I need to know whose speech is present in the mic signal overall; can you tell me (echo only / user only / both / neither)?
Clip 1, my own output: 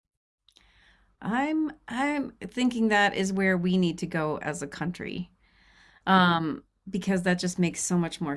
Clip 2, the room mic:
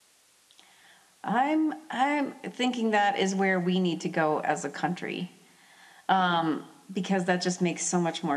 echo only